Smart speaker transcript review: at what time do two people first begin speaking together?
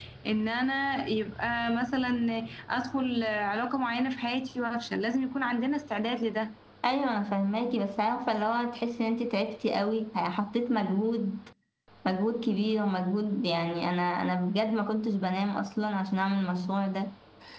none

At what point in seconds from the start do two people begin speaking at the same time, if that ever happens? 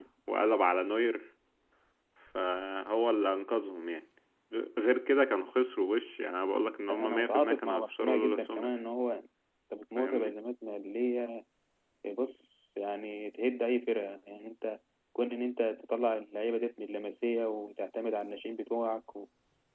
6.9 s

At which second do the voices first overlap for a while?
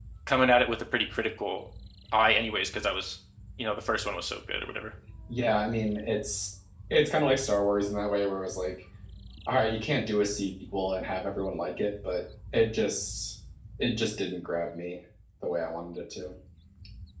none

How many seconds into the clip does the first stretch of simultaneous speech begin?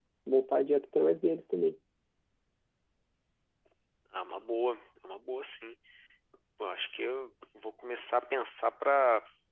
none

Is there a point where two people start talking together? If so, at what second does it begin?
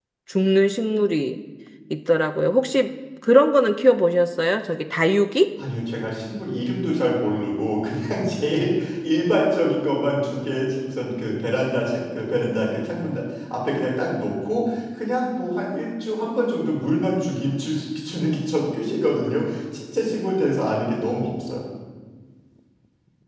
none

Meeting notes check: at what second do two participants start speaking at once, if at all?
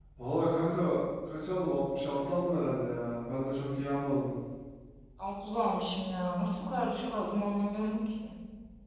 none

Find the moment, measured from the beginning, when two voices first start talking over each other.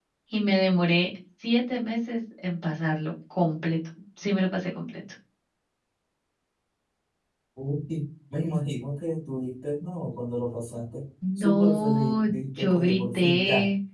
11.2 s

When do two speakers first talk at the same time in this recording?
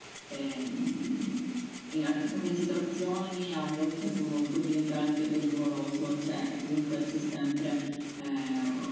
none

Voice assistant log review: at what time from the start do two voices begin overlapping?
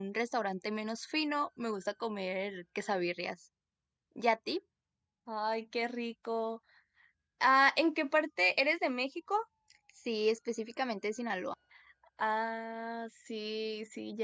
none

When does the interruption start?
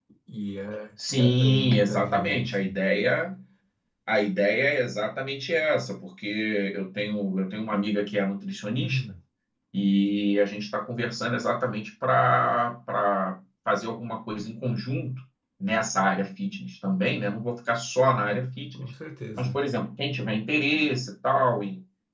1.1 s

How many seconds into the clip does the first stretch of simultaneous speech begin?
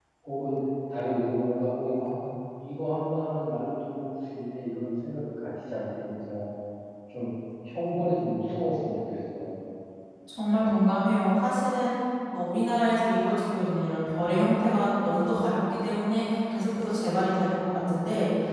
none

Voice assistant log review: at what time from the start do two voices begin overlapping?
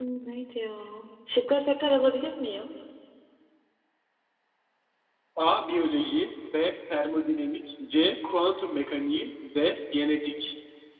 none

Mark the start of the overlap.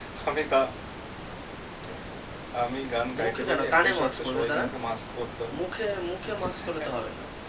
3.2 s

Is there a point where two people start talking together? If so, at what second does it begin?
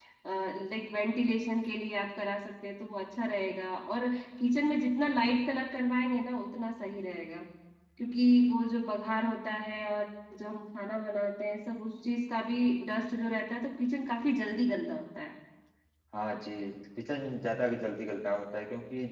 none

